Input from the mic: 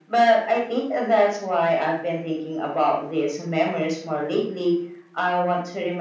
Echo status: present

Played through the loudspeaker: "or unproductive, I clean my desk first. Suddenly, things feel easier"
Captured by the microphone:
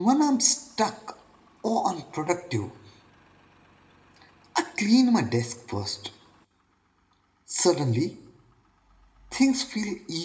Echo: present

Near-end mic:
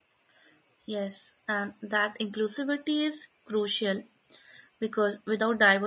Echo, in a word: none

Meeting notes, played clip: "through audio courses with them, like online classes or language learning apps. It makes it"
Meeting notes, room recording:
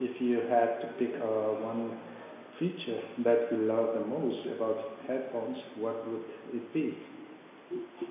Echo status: none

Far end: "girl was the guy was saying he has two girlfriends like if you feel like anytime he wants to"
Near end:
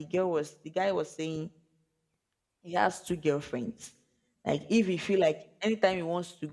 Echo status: present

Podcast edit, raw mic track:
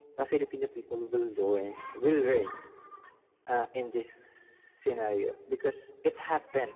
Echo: present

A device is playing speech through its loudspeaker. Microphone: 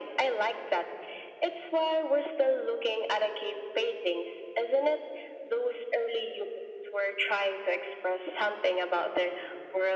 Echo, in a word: present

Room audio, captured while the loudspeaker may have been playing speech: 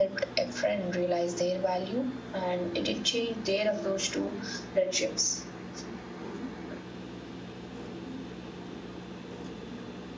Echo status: none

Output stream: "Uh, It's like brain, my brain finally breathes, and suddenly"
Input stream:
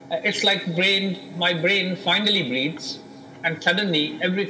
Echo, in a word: present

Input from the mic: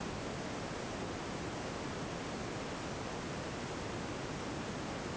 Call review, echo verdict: none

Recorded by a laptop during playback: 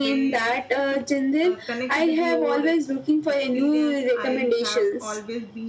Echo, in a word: present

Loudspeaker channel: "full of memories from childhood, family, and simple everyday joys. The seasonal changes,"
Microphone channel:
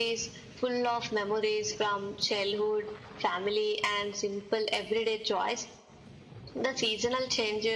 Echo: present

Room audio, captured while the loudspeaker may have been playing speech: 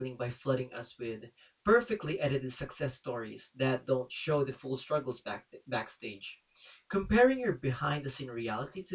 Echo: none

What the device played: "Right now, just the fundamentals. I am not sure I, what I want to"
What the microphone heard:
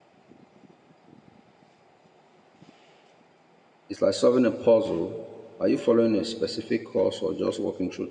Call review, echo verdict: none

